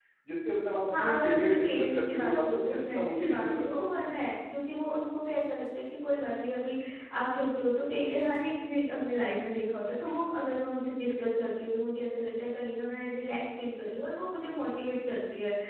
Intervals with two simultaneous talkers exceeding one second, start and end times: 0.9-3.9

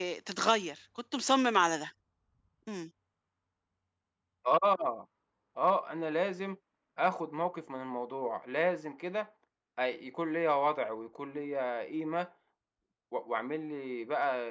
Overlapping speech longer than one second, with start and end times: none

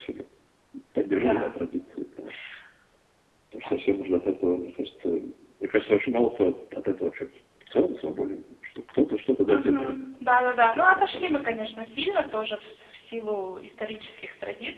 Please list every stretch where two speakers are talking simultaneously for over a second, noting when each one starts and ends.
none

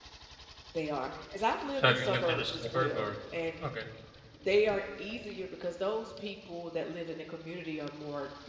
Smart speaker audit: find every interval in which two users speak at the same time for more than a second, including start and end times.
1.8-3.1

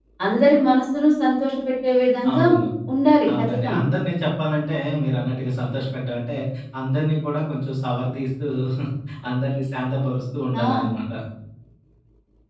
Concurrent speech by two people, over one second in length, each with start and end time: none

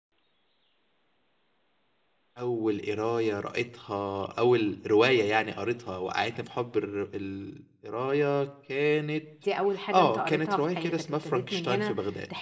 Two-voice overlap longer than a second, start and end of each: 9.9-11.9

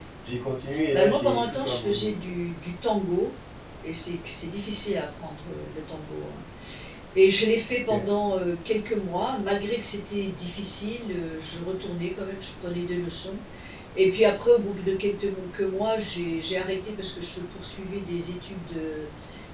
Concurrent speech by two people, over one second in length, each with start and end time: 0.9-2.3

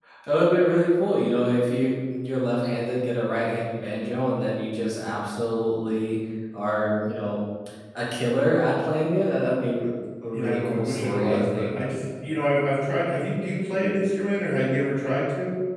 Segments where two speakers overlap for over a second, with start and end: 10.3-11.7

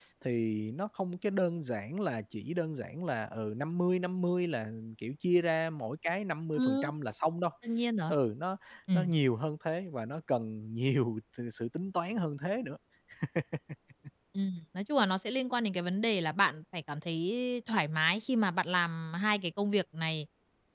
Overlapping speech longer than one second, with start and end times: none

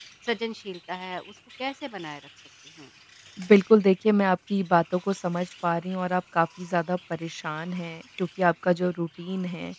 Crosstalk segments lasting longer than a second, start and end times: none

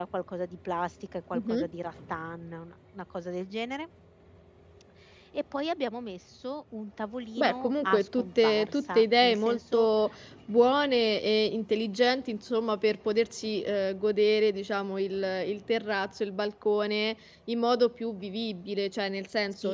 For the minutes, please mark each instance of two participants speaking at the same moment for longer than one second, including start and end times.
7.4-9.9

